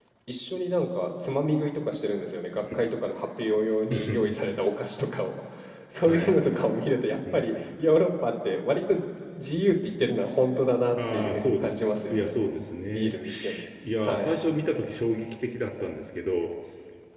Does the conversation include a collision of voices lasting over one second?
Yes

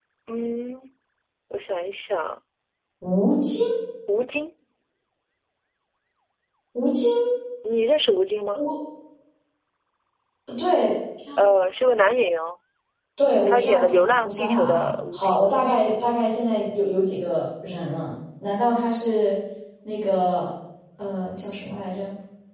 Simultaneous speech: Yes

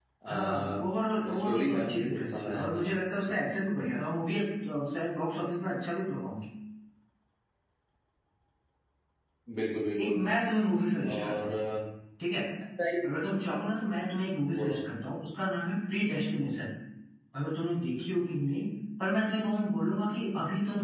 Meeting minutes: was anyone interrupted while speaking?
Yes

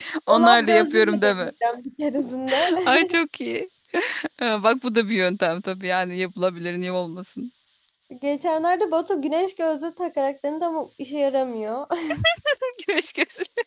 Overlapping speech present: Yes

